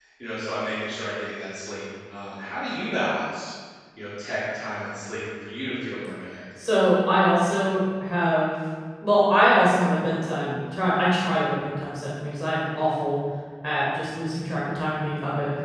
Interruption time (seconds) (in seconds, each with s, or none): none